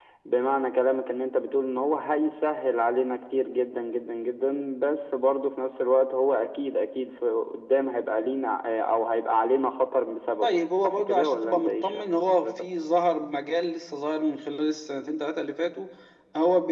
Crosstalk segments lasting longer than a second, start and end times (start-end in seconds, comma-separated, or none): 10.4-12.5